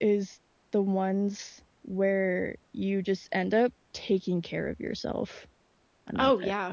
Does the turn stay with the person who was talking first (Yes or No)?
No